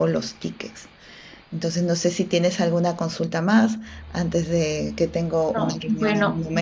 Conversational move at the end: taking over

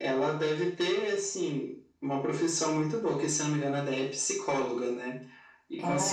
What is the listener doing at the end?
listening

